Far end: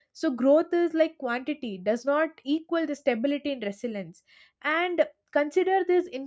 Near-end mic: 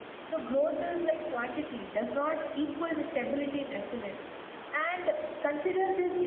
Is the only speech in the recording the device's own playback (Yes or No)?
Yes